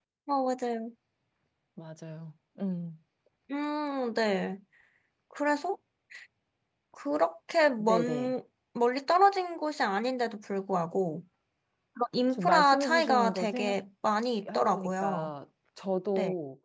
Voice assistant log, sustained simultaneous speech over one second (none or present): present